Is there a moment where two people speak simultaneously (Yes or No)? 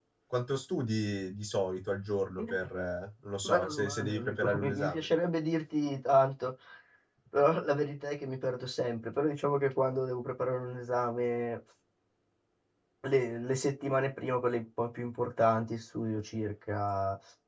Yes